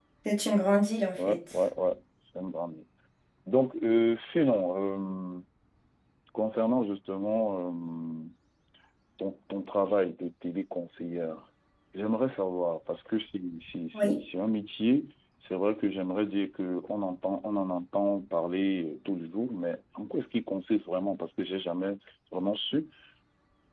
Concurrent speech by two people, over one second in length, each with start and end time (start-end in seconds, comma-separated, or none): none